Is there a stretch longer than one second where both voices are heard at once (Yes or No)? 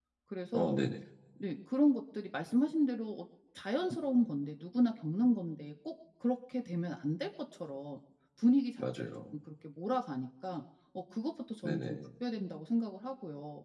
No